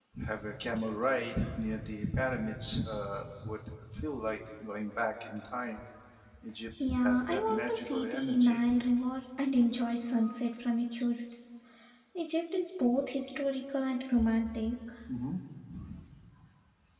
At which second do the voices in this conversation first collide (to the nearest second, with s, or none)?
7 s